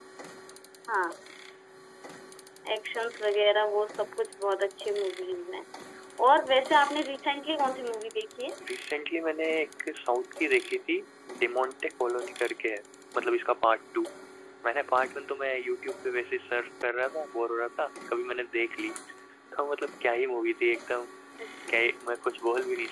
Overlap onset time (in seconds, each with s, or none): none